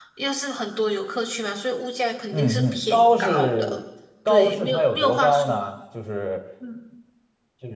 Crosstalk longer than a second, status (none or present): present